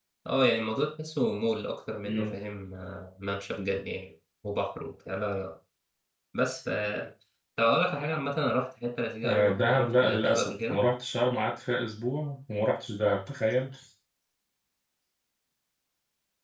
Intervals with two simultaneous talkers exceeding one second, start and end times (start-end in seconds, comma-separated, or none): 9.2-10.8